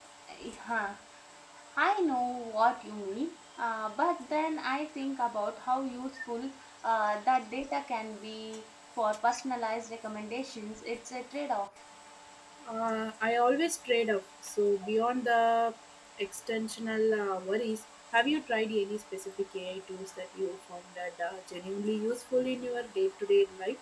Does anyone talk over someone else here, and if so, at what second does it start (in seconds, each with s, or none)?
none